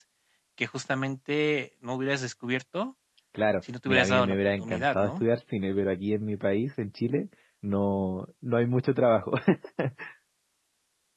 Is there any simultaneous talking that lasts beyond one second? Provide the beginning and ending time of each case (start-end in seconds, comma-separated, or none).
3.9-5.2